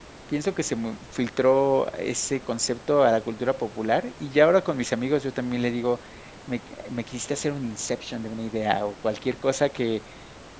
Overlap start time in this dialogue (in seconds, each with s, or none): none